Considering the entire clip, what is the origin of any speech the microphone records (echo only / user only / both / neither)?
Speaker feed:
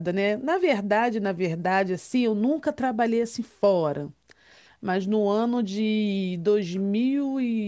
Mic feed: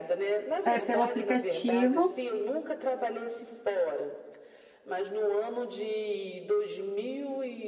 both